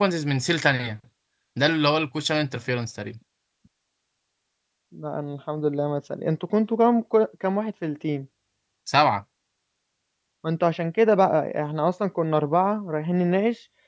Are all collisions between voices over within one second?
Yes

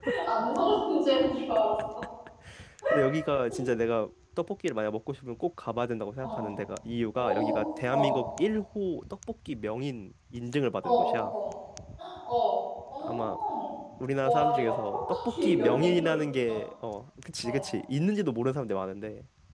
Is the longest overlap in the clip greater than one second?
Yes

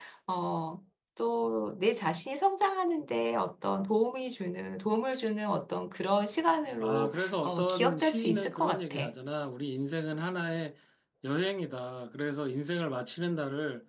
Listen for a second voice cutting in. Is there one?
Yes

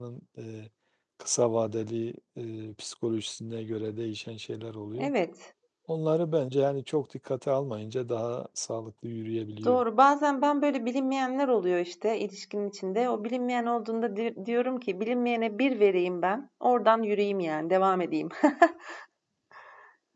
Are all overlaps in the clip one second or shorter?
Yes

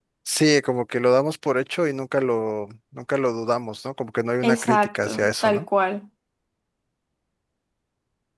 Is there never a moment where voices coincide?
No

